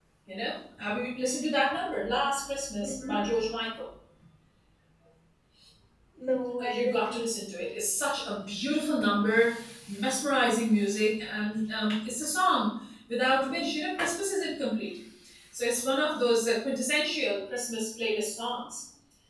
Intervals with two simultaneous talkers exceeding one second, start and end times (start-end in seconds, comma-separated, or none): none